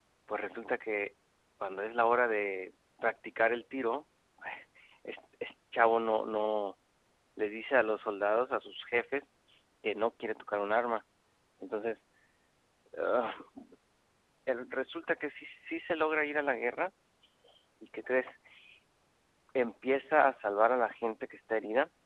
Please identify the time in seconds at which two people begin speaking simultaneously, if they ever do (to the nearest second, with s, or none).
none